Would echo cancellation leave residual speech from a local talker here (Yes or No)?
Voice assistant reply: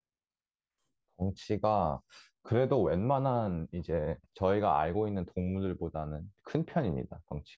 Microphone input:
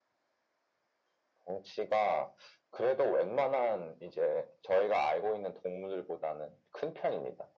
No